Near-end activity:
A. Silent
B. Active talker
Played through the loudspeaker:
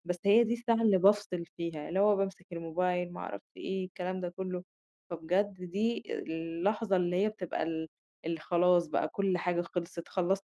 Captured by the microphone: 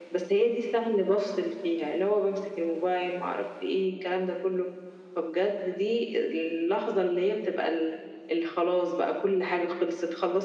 A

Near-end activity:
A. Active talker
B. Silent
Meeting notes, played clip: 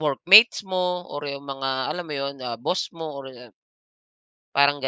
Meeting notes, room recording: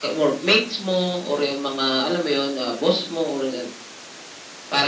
B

